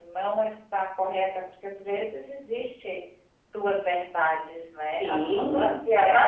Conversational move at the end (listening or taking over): taking over